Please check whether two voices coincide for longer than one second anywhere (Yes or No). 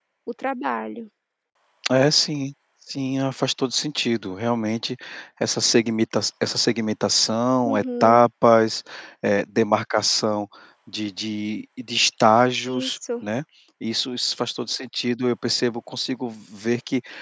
No